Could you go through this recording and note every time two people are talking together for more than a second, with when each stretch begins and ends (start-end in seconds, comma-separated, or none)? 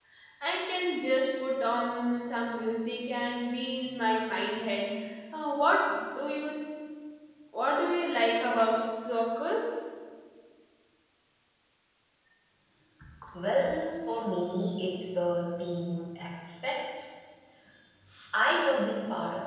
none